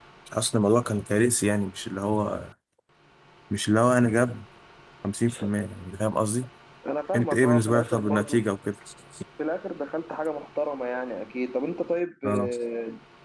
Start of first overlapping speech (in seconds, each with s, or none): 7.1 s